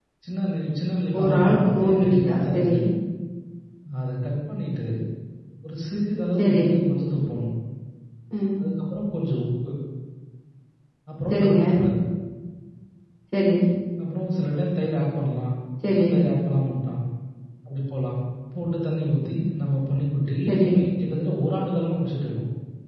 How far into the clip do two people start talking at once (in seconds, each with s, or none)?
1.2 s